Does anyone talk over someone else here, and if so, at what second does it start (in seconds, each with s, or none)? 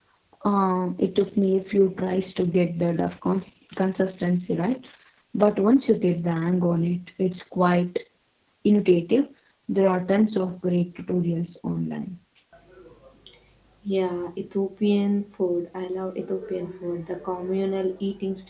none